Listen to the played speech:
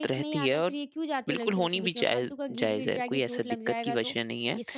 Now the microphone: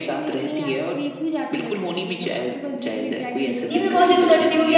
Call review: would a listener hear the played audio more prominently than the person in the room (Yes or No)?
No